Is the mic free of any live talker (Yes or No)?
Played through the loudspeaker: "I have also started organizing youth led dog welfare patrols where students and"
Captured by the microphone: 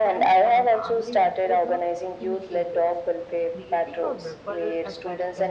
No